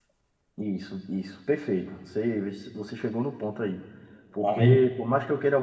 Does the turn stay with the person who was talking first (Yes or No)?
Yes